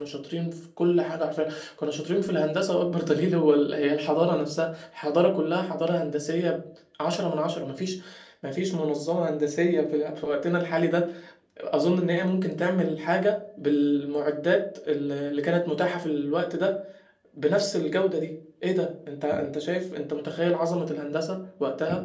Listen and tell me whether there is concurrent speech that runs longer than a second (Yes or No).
No